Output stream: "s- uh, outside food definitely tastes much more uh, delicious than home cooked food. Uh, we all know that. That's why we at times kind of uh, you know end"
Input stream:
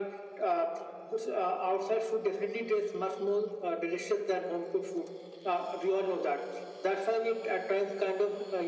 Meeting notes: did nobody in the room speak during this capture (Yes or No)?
Yes